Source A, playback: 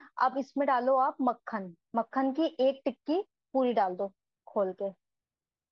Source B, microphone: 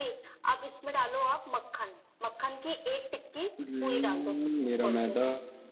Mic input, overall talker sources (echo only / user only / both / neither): both